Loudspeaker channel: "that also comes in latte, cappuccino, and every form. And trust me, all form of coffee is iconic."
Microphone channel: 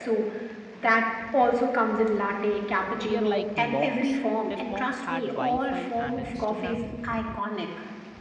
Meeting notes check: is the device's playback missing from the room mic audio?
No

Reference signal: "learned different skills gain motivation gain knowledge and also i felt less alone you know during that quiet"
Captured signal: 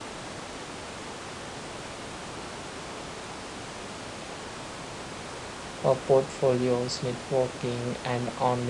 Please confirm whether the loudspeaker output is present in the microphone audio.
No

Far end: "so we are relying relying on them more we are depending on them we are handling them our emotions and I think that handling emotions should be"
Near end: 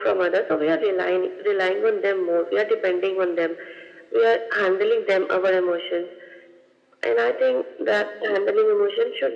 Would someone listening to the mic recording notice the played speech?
Yes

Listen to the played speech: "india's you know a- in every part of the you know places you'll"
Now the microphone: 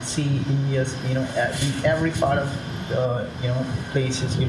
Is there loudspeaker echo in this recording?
Yes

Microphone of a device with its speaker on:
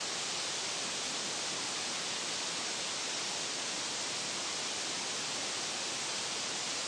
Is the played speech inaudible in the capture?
Yes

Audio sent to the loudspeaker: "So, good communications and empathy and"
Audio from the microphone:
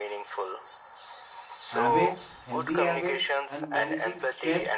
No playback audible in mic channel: No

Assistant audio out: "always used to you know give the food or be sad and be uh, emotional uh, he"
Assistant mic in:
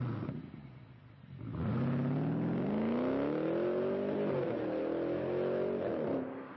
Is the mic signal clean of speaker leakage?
Yes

